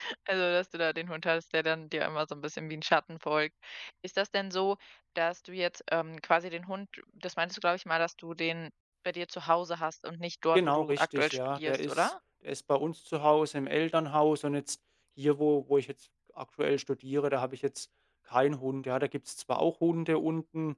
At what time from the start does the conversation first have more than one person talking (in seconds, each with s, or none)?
10.5 s